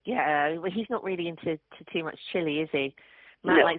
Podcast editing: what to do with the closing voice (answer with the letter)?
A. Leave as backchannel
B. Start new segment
A